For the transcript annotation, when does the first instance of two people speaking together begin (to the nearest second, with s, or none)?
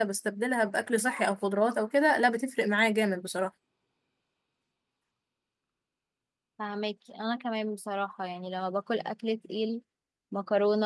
none